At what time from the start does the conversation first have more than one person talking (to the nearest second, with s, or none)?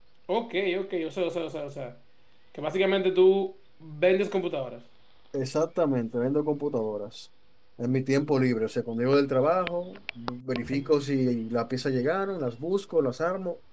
none